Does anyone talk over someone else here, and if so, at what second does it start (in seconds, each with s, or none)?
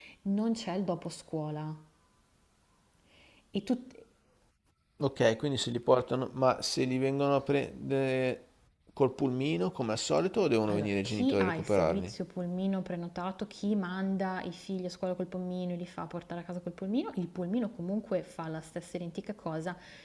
10.7 s